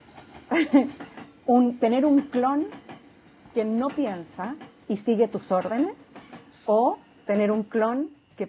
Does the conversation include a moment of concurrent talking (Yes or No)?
No